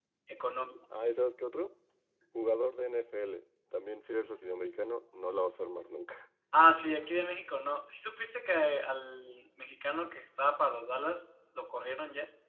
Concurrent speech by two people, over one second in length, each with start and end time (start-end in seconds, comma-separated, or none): none